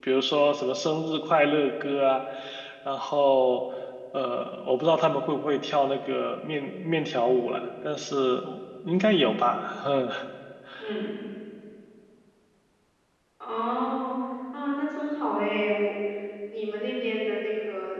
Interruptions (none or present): none